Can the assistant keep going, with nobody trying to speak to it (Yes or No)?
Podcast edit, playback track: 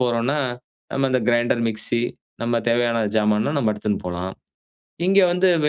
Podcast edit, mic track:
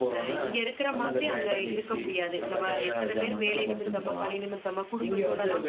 No